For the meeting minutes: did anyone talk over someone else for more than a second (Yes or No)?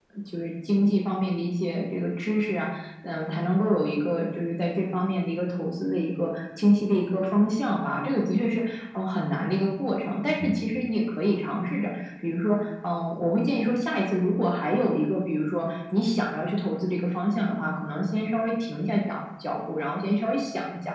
No